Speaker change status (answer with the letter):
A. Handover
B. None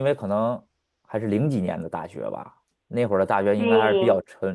B